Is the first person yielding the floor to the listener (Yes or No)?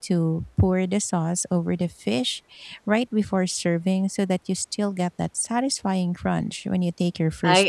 Yes